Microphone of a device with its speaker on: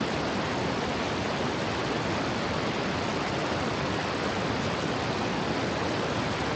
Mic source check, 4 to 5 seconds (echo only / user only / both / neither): neither